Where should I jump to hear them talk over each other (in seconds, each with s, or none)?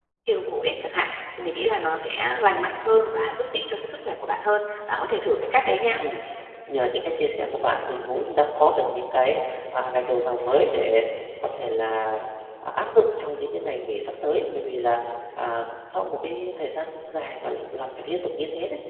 none